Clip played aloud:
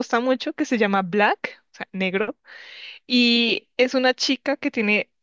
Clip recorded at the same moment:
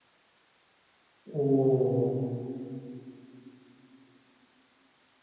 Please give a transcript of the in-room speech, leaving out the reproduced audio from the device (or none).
oh,